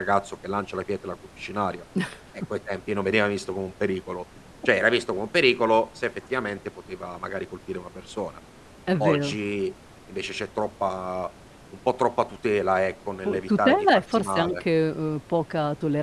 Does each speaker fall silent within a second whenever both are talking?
No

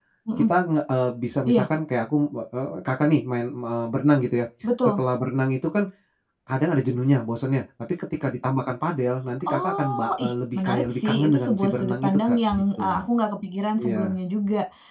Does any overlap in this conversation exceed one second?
Yes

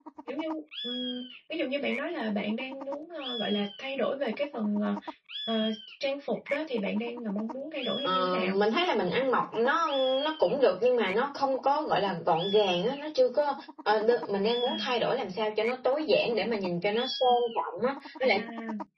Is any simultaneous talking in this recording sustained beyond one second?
No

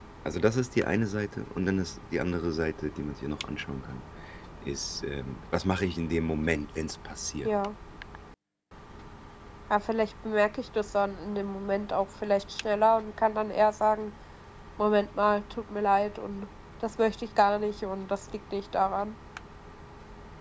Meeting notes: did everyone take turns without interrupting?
Yes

